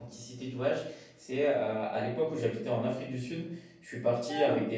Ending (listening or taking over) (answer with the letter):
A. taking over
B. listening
B